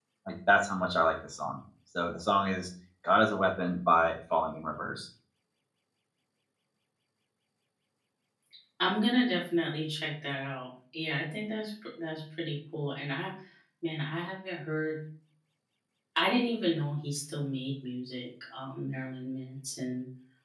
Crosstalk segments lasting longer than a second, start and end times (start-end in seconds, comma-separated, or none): none